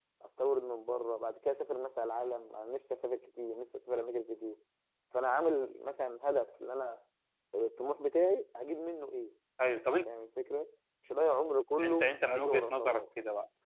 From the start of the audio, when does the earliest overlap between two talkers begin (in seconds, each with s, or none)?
11.8 s